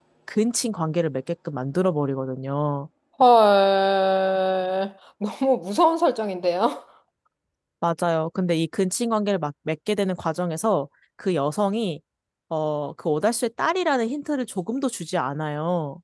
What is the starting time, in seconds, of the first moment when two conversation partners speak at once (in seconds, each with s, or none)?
none